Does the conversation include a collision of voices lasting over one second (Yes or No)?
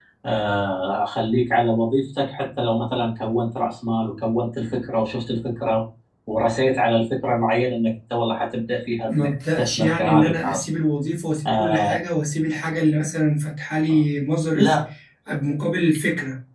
Yes